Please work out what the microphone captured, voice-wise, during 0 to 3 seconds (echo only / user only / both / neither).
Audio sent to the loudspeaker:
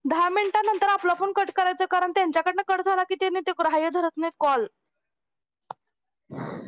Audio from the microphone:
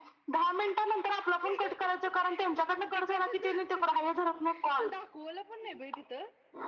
both